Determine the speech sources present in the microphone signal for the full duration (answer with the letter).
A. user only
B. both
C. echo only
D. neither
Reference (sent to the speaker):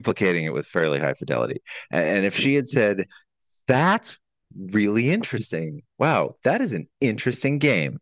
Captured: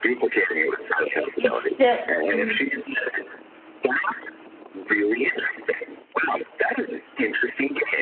B